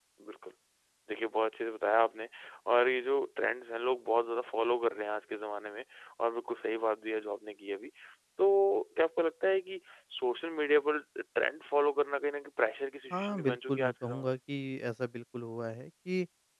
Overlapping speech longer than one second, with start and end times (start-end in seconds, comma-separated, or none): 13.1-14.3